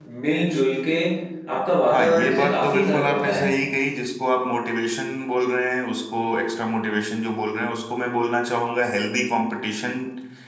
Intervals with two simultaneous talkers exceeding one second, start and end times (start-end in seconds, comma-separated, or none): 1.9-3.5